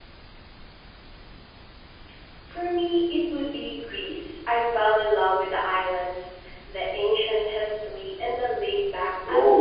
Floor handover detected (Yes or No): Yes